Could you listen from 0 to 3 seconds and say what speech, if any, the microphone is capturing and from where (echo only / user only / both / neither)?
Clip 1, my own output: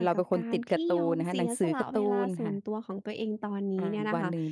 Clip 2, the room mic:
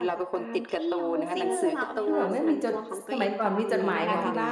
both